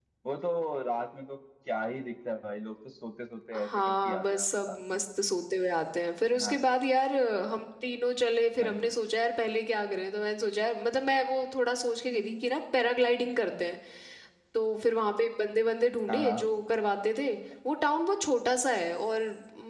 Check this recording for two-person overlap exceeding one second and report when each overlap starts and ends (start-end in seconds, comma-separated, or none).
3.5-5.1